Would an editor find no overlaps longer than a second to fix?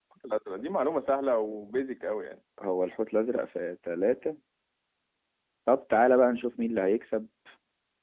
Yes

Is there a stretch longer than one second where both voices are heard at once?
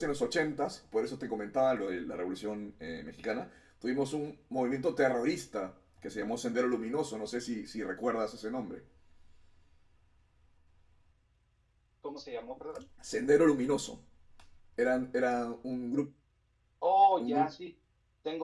No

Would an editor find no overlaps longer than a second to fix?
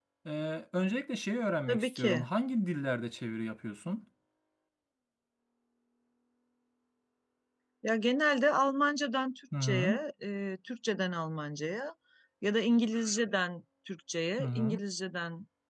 Yes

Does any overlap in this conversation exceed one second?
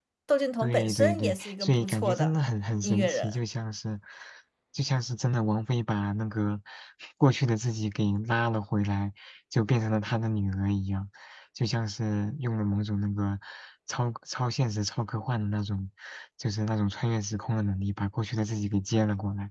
Yes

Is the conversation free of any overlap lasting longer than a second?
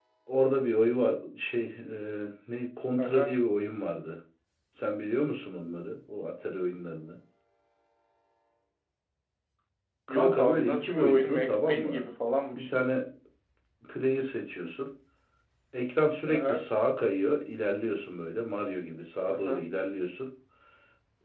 No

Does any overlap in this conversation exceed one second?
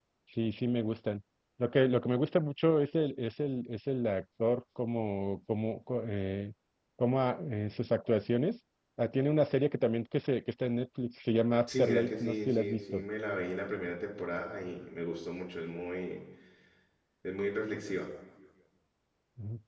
Yes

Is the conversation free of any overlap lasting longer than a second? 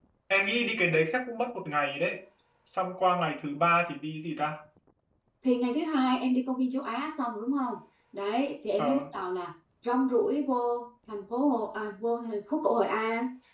Yes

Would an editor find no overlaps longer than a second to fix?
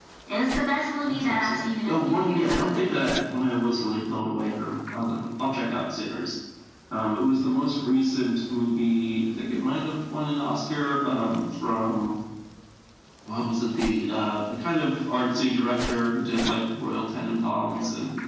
No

